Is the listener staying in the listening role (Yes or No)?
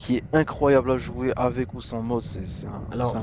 No